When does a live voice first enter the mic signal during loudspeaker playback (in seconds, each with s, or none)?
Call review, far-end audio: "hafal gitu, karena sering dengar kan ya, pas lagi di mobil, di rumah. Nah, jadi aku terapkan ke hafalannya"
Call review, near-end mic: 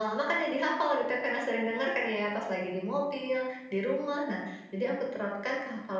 none